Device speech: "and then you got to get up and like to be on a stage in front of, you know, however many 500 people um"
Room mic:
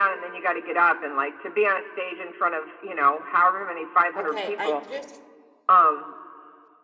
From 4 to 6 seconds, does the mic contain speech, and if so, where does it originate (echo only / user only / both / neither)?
both